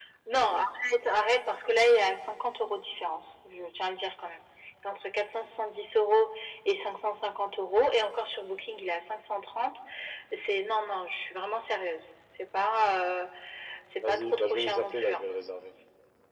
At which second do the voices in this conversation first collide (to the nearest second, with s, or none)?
14 s